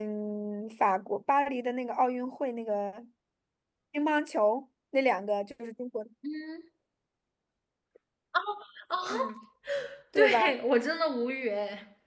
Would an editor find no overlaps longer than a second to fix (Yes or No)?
Yes